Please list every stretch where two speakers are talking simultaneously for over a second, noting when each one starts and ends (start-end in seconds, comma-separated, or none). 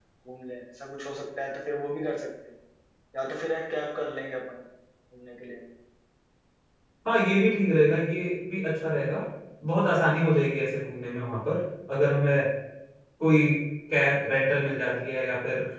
none